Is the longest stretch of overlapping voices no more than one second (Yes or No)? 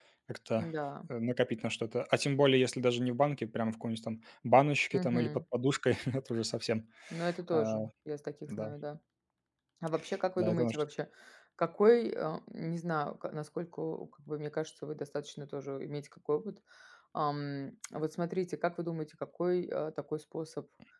Yes